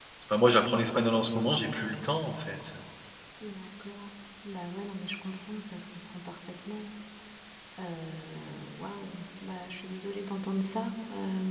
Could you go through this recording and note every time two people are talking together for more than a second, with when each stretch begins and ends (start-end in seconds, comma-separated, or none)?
none